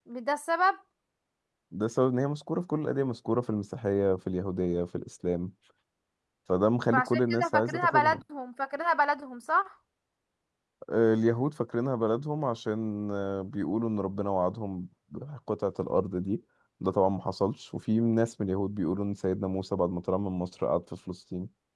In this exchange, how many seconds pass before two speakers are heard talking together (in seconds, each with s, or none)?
6.9 s